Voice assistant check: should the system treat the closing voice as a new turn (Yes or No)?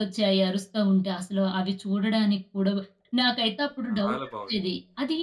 No